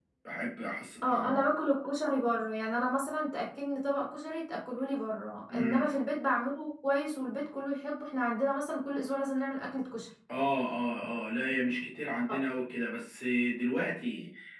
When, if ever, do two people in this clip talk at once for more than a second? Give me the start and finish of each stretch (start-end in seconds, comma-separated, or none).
none